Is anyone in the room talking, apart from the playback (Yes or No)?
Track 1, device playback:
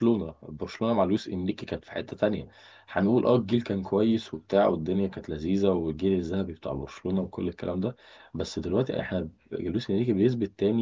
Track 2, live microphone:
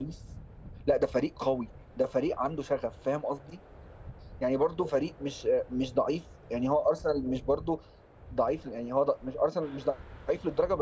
Yes